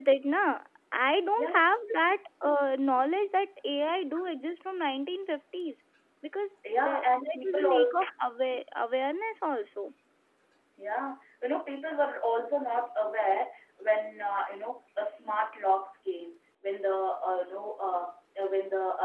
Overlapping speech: Yes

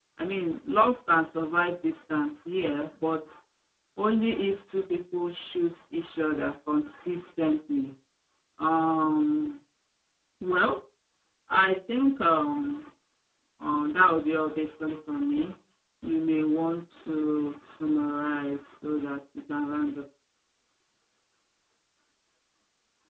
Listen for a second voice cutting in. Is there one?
No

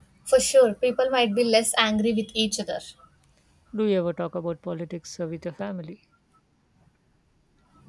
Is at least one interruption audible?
No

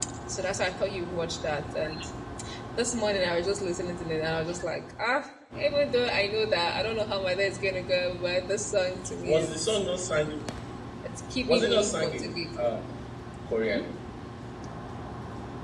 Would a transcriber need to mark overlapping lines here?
Yes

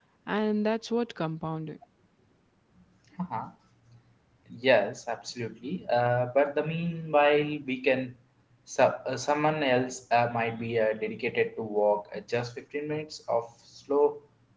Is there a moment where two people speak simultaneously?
No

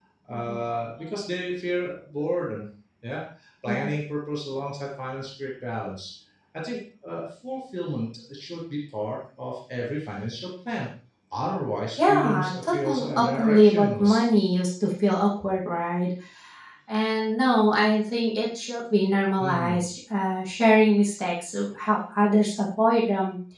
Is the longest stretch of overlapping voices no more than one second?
No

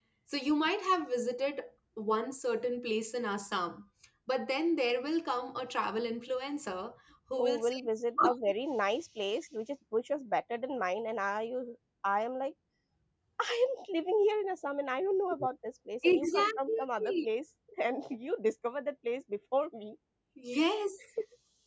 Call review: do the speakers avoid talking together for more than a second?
No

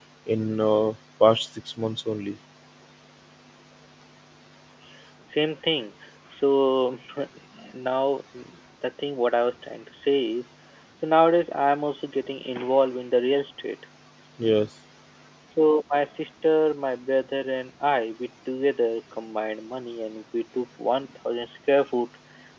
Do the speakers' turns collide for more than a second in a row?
No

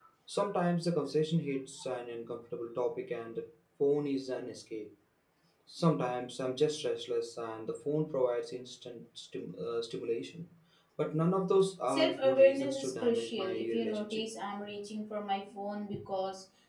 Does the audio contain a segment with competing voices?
Yes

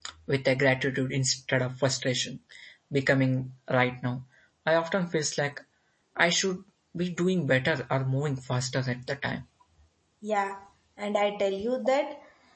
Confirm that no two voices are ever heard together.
Yes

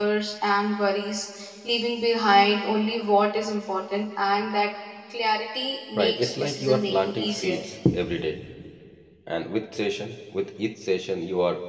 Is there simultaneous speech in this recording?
Yes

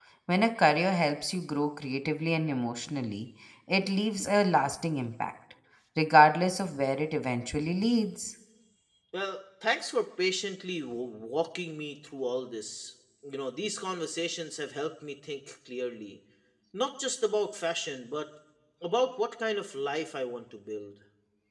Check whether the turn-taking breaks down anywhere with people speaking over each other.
No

